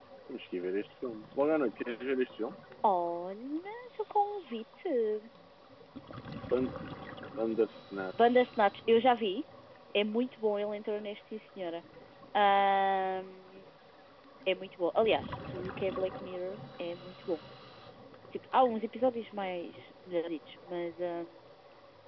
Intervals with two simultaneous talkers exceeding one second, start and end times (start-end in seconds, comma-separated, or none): none